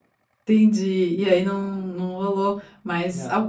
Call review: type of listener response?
listening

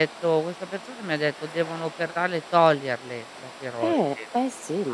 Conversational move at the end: taking over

